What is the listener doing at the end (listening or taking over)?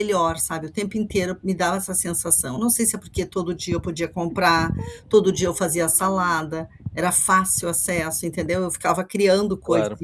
listening